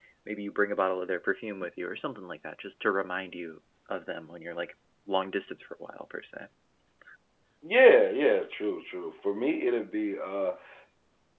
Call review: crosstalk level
none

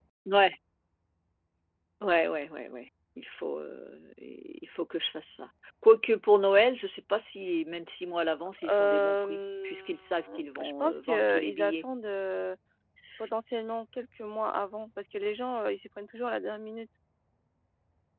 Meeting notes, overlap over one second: present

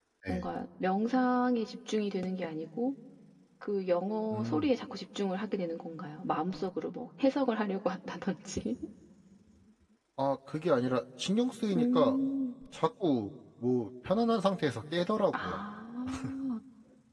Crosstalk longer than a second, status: none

